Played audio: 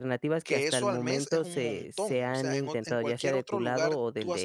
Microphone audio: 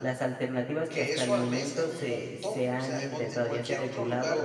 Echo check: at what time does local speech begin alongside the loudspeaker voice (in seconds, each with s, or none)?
none